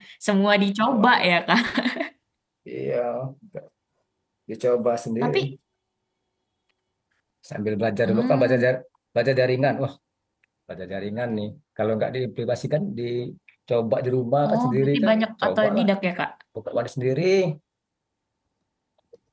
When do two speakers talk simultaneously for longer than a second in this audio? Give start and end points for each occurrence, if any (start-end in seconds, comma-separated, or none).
14.5-15.9